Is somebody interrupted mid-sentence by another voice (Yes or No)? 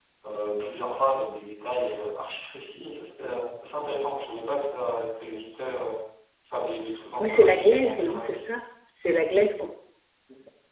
Yes